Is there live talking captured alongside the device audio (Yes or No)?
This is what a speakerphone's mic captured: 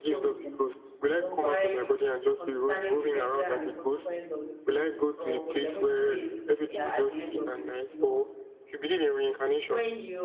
Yes